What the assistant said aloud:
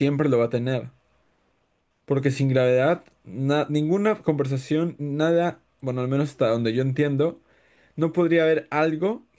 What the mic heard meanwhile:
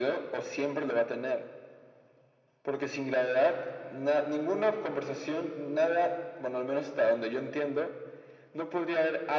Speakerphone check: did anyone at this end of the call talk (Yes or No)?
No